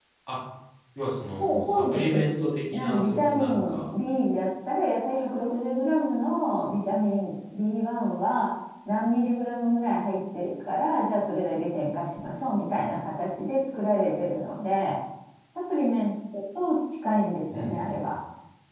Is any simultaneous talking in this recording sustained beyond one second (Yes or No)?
Yes